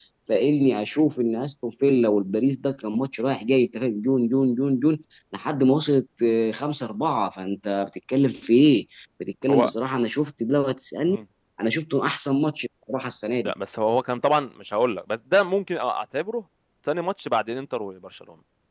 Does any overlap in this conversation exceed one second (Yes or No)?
No